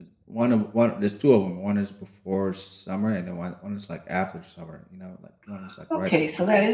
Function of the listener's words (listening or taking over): taking over